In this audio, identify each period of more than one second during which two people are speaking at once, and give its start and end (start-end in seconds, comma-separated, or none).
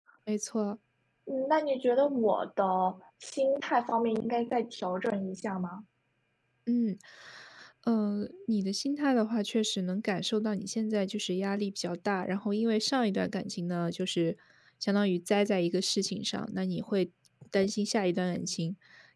none